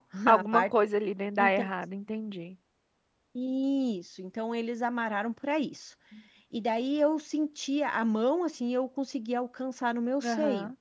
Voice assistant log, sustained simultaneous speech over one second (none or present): none